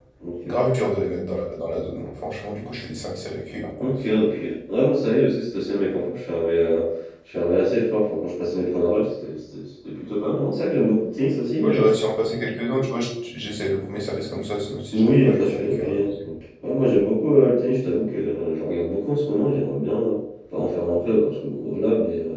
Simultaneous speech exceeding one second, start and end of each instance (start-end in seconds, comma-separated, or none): 14.9-16.3